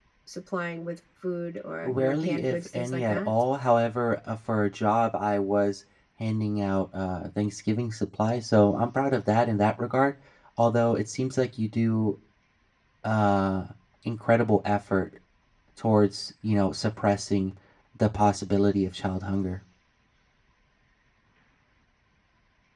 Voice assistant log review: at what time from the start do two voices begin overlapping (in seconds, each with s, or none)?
1.8 s